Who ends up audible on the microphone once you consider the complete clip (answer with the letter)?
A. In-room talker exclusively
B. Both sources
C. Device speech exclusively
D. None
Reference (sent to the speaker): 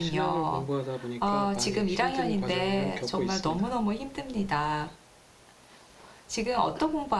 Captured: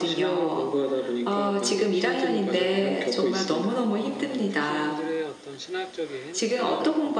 B